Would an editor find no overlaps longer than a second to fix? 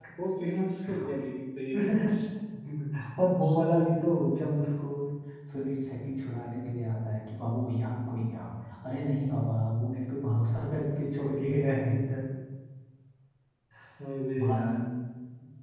Yes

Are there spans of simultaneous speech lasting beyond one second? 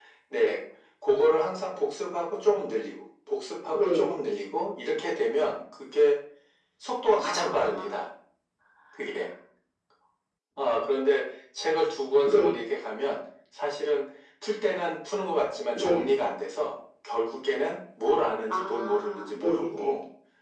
Yes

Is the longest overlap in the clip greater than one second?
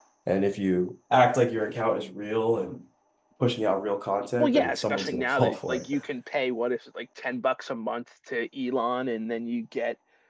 Yes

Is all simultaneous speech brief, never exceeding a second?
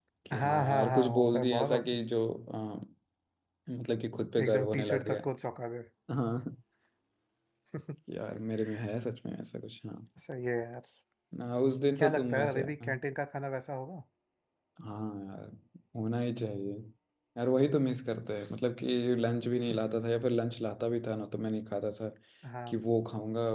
No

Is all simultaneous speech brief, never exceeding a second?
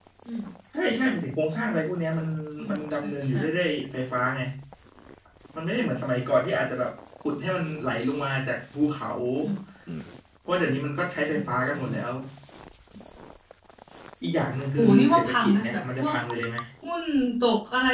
No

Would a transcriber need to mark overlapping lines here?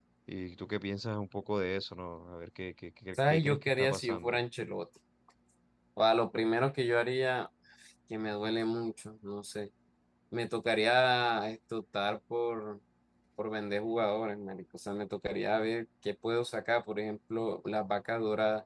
Yes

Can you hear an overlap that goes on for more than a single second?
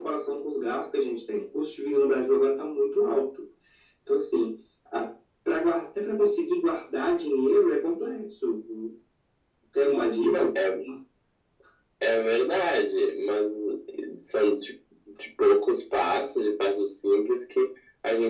No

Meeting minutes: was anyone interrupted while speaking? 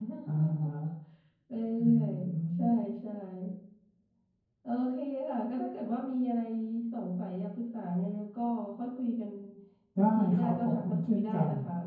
Yes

